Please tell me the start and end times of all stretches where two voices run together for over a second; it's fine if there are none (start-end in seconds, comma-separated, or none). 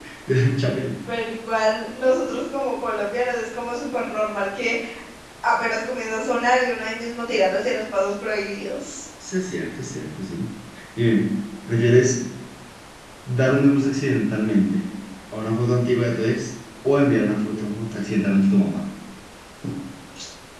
none